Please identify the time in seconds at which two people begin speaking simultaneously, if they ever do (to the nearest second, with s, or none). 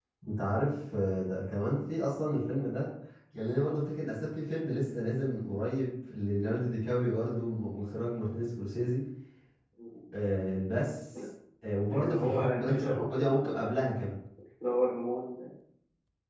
12 s